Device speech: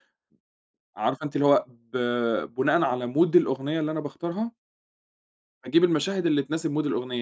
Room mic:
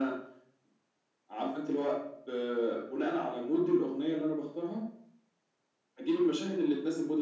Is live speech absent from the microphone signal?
Yes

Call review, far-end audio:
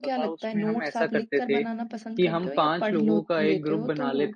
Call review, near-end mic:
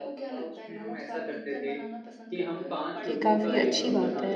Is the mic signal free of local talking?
No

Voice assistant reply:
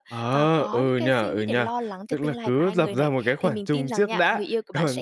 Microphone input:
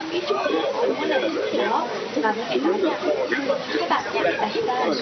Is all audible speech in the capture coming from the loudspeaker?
No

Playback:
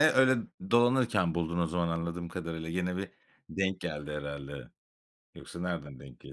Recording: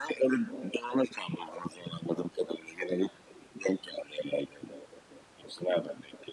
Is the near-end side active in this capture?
No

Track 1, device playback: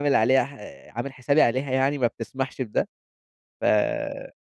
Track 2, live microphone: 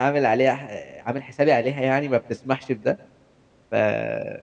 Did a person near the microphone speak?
No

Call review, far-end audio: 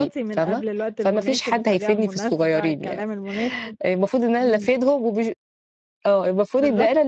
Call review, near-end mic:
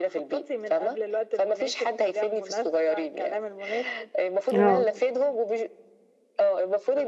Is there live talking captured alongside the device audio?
Yes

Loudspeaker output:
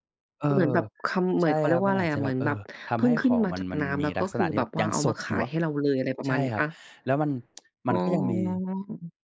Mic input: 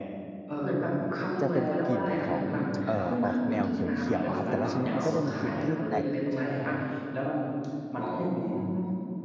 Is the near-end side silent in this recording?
No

